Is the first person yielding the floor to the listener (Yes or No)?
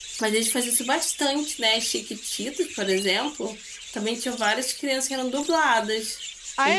Yes